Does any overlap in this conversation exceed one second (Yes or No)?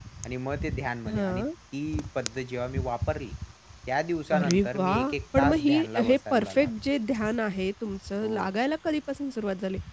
Yes